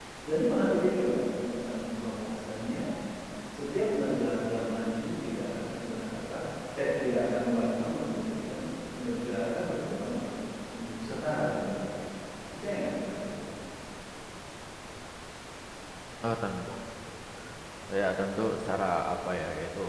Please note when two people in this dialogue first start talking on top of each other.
none

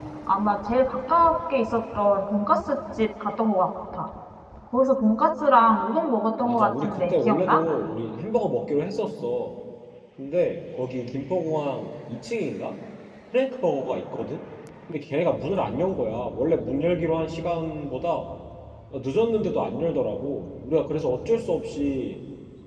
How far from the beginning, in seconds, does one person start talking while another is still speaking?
6.4 s

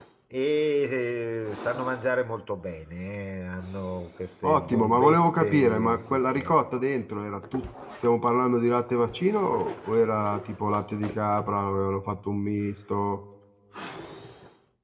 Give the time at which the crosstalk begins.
4.4 s

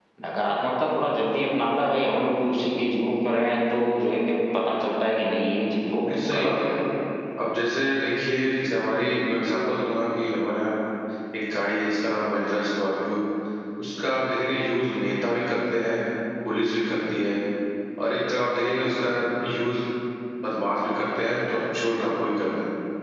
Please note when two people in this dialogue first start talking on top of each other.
5.5 s

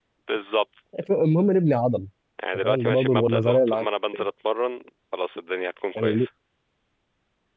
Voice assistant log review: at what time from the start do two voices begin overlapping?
2.6 s

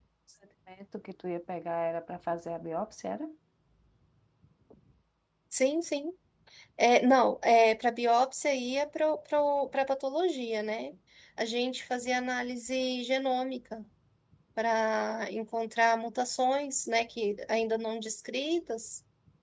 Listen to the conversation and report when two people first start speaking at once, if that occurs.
none

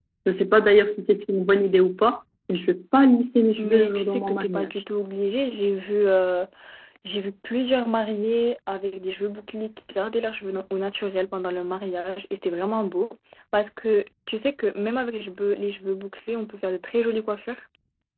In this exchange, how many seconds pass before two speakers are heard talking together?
3.6 s

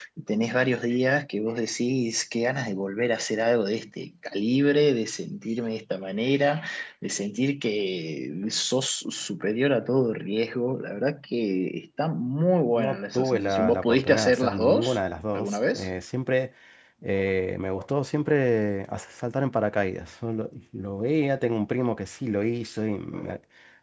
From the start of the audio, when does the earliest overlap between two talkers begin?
12.7 s

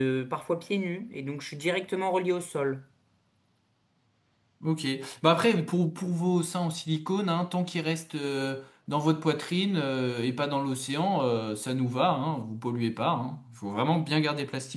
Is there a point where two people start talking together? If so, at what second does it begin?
none

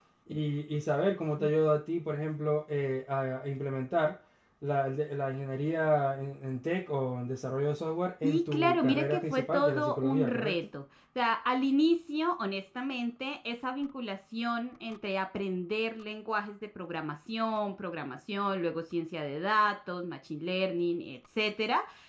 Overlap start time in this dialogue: 8.2 s

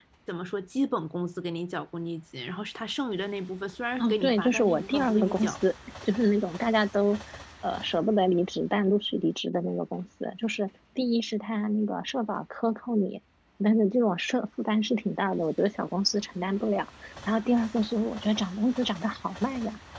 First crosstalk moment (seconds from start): 4.0 s

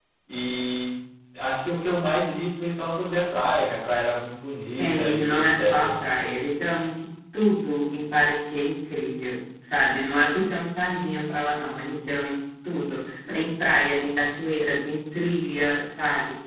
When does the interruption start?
4.7 s

